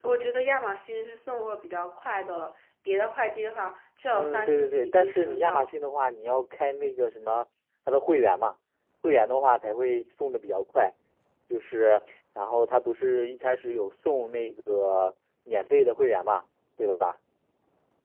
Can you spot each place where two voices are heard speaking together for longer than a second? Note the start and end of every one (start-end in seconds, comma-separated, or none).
4.1-5.7